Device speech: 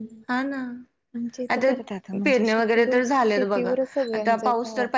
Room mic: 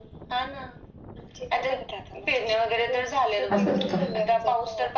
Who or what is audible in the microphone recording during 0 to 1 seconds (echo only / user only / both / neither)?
echo only